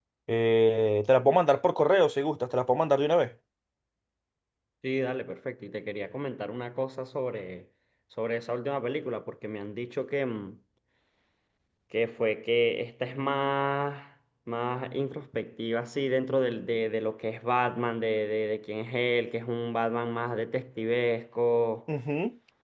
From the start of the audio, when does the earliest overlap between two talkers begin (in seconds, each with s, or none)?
none